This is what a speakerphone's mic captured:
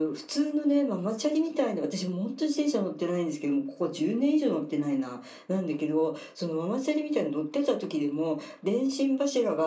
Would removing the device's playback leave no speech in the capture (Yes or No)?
Yes